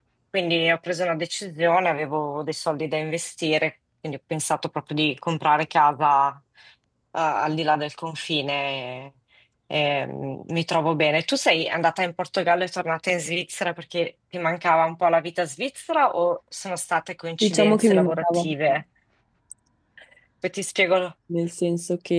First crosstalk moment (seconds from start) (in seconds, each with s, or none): 17.4 s